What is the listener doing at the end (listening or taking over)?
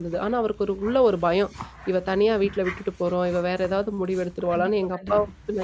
listening